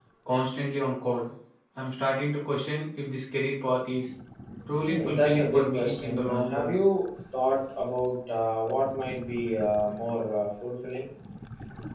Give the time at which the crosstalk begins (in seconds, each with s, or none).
4.9 s